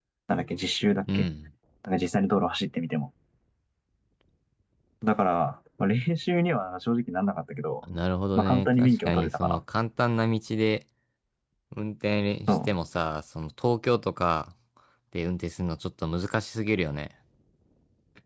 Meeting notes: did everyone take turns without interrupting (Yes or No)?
No